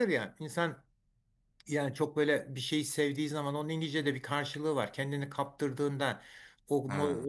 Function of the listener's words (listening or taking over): listening